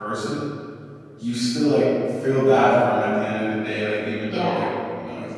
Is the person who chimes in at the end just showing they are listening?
Yes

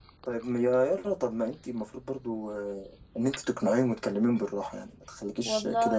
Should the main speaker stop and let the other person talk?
Yes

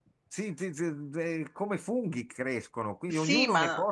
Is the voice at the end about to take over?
No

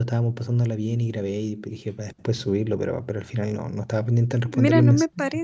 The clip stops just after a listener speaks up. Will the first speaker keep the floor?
No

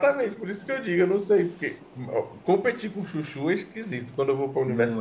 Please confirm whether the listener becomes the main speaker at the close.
No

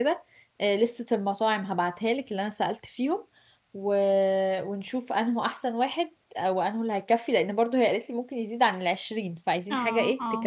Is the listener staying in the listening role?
No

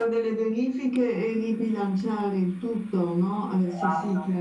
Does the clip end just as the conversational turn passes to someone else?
Yes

